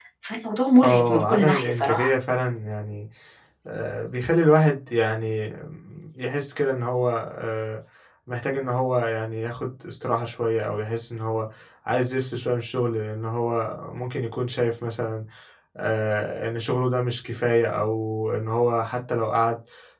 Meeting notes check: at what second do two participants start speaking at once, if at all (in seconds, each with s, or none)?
0.8 s